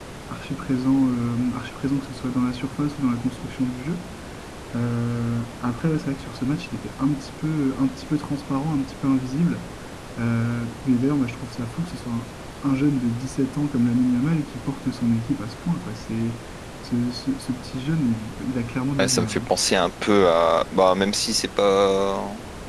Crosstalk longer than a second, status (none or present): none